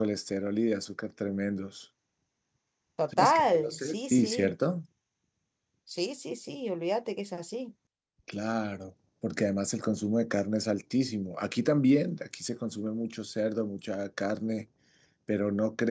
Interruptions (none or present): present